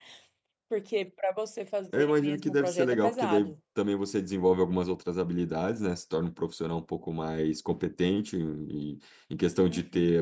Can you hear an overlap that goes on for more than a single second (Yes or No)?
Yes